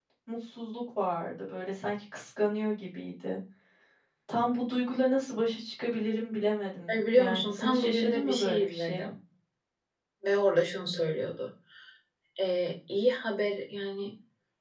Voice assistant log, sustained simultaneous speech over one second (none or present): present